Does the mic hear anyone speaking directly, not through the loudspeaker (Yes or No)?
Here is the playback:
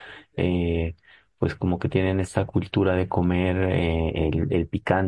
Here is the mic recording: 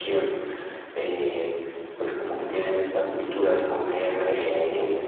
No